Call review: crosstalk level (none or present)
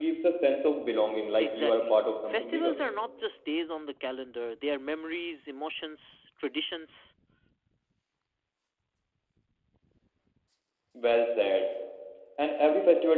present